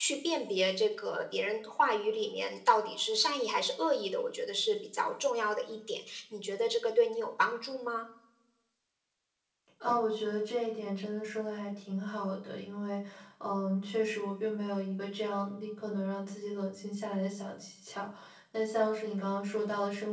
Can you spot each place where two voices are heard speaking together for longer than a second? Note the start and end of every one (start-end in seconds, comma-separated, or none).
none